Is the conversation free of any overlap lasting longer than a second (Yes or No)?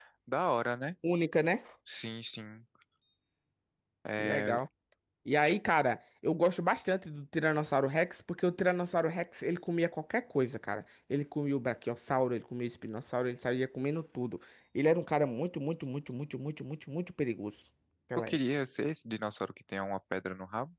Yes